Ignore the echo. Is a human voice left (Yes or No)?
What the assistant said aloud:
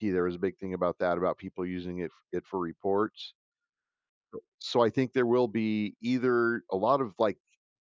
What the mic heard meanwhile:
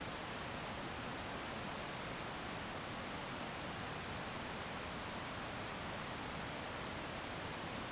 No